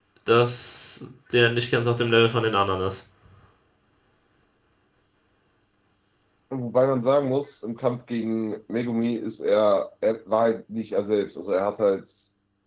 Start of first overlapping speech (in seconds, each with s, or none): none